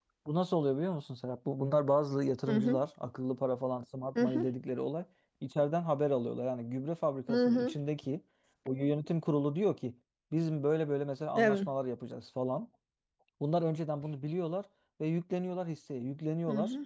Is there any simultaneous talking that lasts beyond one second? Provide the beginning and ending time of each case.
none

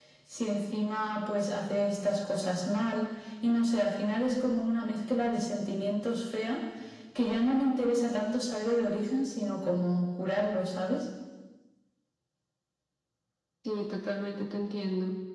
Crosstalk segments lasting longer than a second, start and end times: none

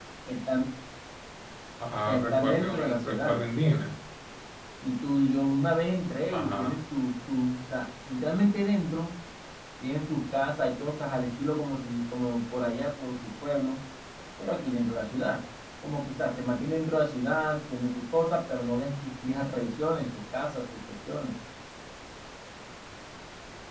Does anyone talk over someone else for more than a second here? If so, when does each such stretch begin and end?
2.0-3.4

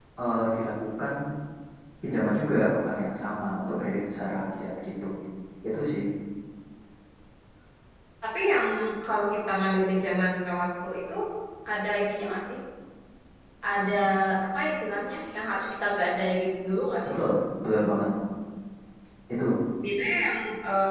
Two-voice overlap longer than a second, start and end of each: none

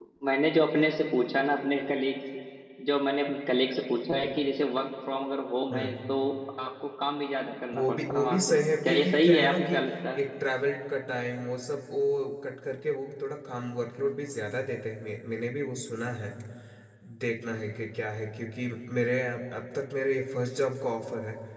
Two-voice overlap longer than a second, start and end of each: 7.7-9.7

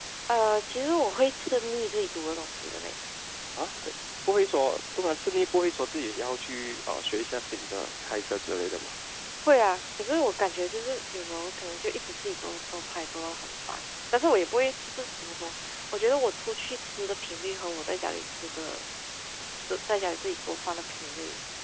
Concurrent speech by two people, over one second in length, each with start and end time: none

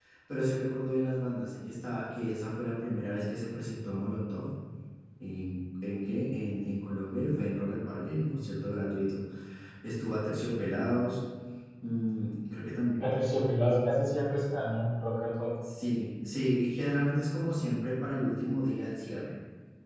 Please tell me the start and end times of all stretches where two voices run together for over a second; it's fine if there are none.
none

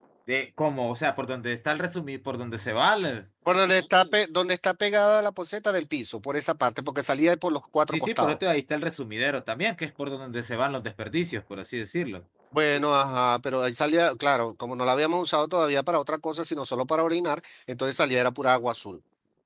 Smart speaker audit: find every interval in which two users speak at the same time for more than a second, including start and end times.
none

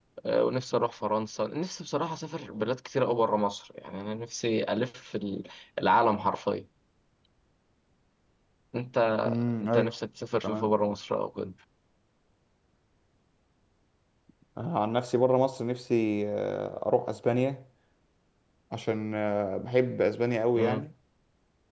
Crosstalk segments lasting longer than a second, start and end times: none

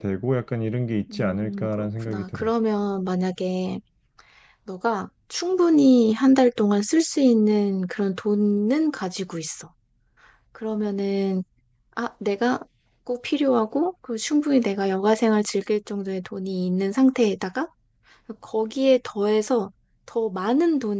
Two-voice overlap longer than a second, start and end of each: 1.1-2.5

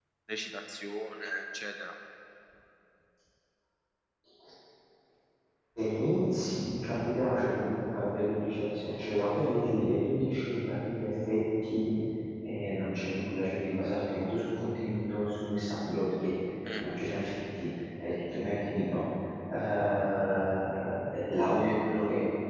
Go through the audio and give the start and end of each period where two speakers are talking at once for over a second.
none

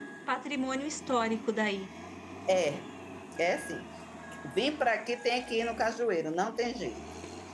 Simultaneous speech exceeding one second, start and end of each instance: none

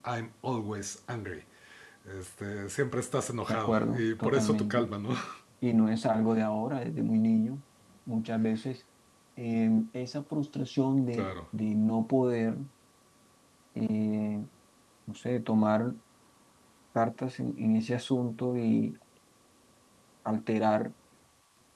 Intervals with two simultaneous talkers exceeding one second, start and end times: 3.5-4.9

